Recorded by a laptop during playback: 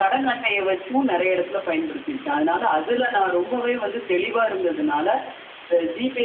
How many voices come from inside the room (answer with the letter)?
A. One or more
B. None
B